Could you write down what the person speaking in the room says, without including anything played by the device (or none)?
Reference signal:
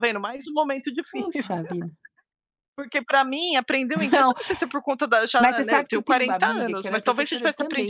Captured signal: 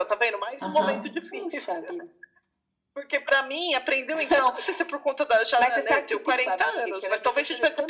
Aham.